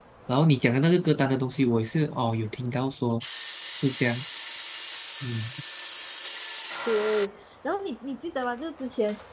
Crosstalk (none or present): none